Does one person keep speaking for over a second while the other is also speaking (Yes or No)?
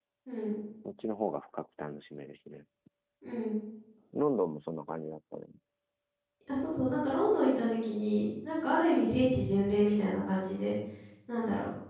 No